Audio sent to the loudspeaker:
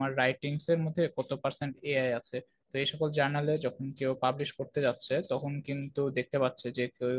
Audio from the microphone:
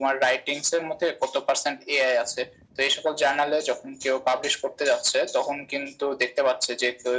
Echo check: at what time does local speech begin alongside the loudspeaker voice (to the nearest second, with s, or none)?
none